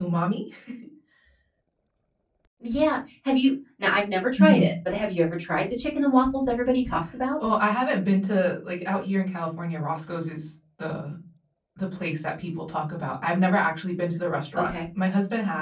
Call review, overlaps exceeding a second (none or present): none